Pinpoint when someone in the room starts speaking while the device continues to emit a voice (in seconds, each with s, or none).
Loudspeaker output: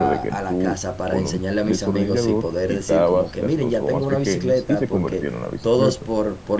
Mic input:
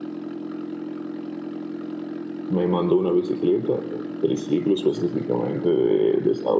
2.5 s